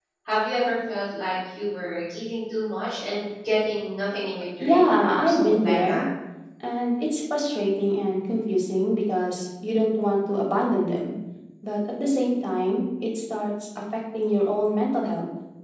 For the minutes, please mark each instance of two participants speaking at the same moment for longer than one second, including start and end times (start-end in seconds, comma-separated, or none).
4.1-6.0